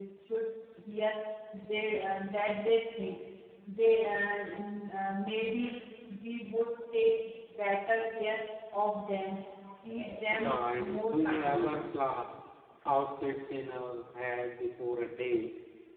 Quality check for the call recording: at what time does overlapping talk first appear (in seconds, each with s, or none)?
10.3 s